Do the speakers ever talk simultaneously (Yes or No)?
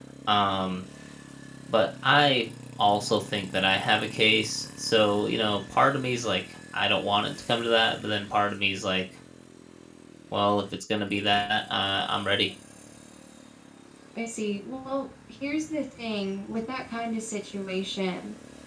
No